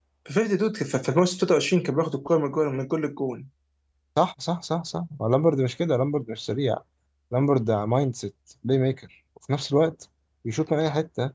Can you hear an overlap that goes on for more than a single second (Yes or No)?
No